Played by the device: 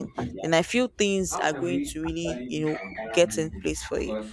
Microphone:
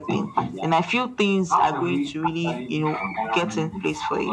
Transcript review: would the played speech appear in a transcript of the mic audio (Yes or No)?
Yes